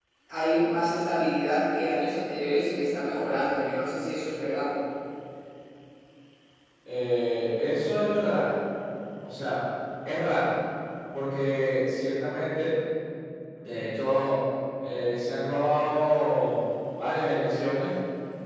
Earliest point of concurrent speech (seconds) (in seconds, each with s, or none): none